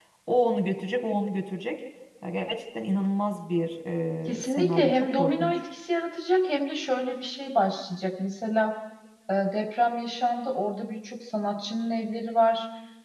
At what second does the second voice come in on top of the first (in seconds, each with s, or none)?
4.4 s